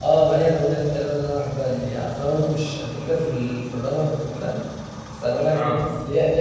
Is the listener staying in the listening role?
Yes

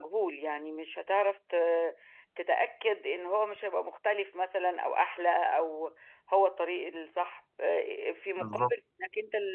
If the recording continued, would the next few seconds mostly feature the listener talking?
No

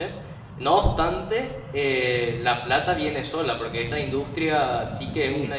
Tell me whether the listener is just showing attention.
Yes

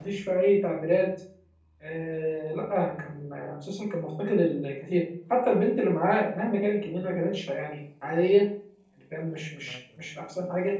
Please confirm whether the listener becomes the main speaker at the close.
No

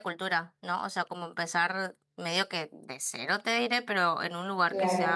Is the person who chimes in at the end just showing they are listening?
Yes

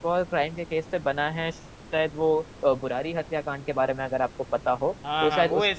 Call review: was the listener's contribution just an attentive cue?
No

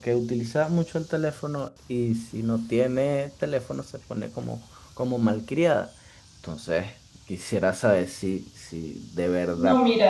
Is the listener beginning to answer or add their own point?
Yes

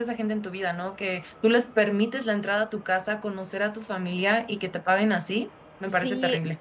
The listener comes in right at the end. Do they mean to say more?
Yes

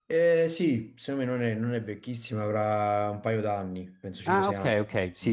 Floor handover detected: Yes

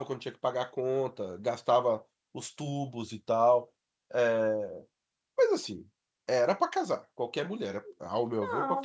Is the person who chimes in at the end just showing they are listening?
No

